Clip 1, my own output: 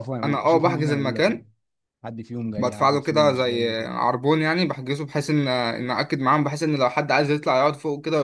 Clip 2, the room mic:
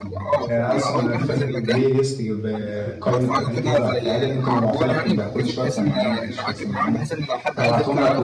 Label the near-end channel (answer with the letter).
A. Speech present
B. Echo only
A